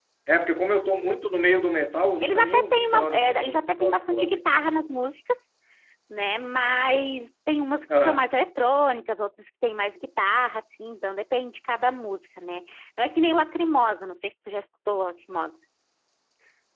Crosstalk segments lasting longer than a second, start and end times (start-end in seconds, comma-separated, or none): 2.2-4.5